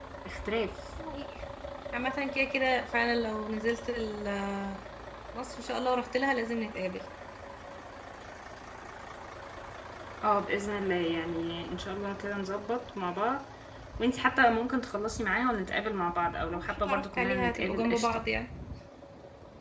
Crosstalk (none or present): present